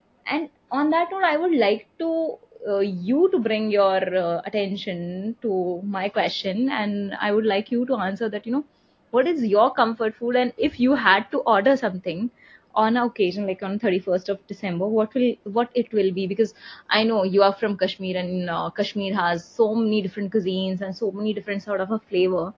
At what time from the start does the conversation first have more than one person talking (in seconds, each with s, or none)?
none